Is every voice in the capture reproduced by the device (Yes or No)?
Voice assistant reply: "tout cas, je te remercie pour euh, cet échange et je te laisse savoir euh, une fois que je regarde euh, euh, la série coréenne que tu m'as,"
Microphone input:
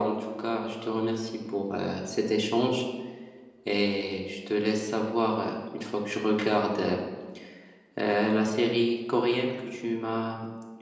Yes